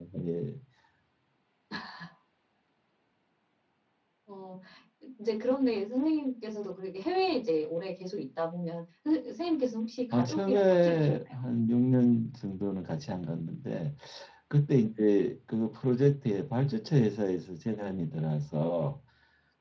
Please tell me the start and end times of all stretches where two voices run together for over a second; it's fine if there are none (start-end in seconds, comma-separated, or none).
10.1-11.4